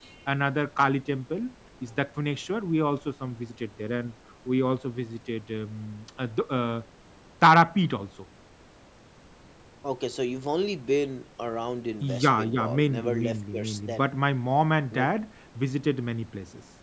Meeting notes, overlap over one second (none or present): present